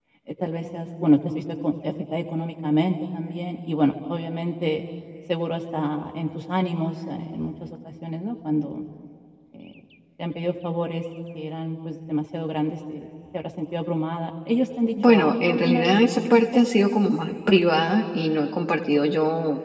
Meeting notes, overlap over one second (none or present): present